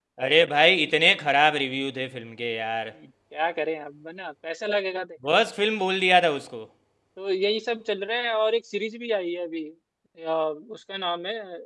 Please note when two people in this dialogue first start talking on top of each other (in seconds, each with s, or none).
none